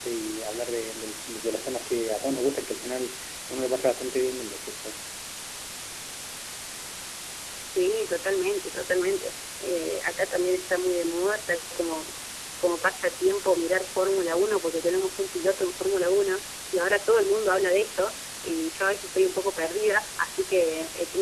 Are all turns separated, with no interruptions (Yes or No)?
Yes